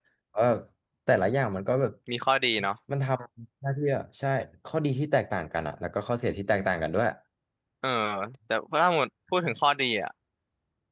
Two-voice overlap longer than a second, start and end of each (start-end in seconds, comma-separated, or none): none